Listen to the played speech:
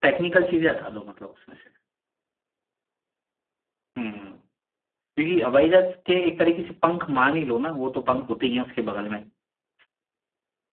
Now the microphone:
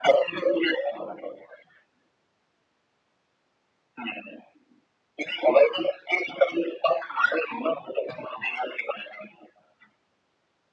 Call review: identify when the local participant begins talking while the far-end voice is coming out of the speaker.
none

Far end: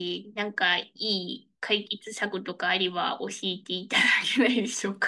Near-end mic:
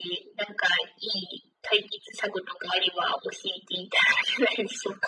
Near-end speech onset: none

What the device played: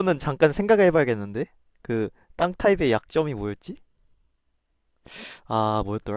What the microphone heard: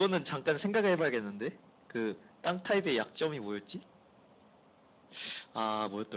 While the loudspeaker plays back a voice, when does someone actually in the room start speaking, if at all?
none

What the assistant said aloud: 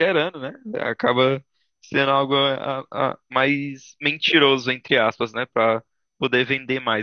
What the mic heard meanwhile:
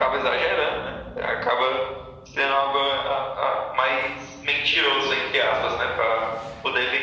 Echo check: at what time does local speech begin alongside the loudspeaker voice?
none

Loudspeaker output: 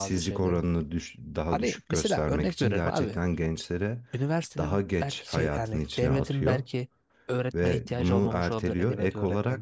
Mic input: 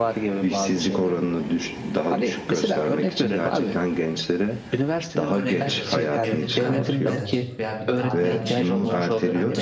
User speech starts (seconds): 5.3 s

